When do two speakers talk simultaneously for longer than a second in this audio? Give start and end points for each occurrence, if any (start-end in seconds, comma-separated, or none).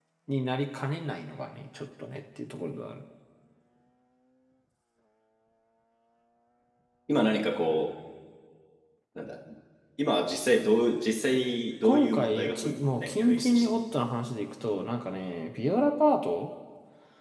11.8-13.8